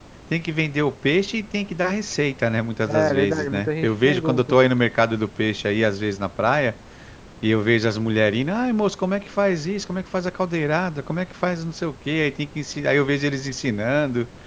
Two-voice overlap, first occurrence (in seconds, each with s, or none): 2.9 s